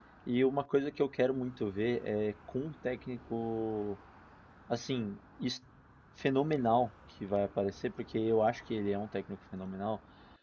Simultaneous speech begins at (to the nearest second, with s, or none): none